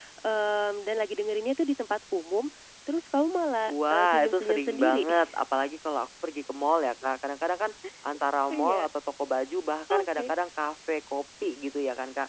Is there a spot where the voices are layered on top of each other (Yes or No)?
Yes